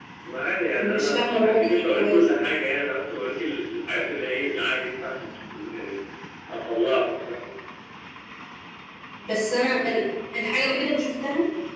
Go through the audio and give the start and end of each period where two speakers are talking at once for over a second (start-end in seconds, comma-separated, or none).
0.8-2.2